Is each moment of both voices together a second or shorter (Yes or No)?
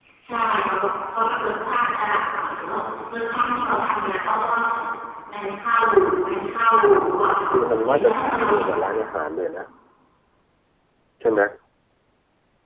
No